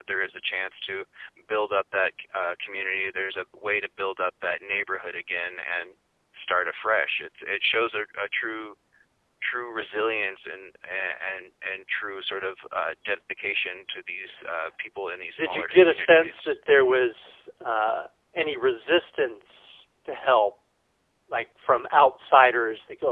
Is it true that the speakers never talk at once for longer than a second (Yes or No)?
No